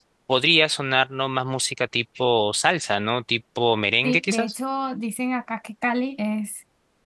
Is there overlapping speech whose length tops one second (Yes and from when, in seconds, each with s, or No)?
No